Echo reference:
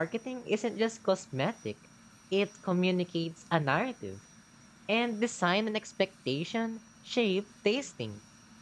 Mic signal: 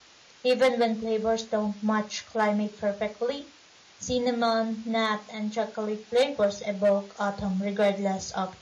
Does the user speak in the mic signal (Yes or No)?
Yes